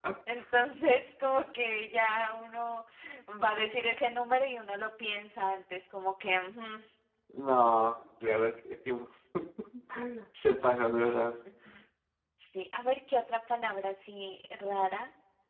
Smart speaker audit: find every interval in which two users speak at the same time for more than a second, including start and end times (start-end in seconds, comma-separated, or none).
none